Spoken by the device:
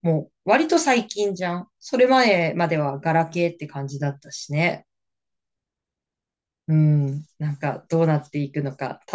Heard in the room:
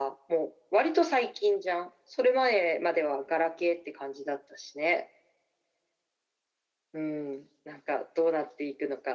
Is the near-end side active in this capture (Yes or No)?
No